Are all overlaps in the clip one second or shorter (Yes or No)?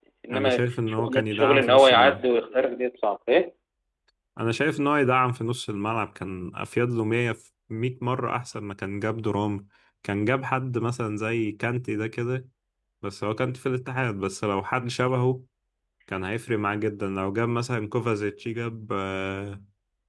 No